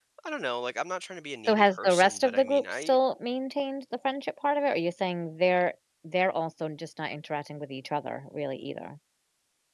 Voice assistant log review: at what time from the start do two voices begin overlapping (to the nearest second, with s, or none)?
1 s